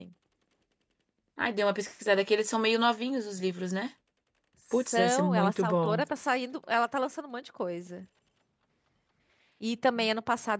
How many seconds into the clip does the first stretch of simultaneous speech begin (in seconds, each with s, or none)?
4.7 s